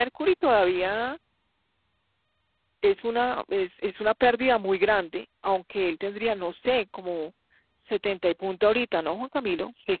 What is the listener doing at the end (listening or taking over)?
taking over